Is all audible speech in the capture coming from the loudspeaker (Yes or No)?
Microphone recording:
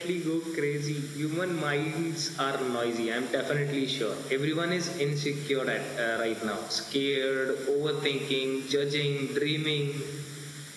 Yes